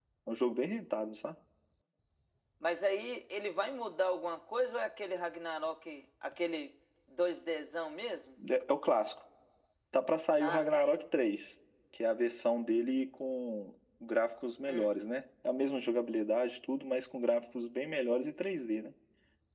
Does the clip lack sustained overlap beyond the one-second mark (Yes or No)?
Yes